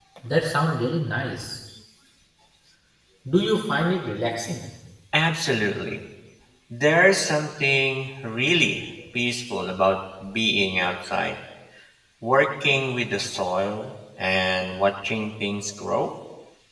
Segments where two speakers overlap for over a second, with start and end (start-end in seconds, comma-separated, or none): none